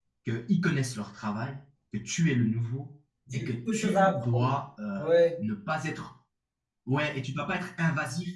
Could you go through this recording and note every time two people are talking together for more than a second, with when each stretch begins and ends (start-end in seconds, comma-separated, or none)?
3.3-4.5